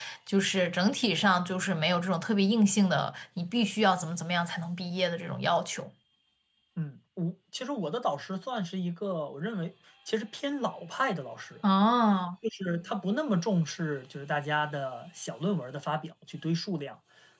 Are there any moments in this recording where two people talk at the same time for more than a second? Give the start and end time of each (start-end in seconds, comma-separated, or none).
none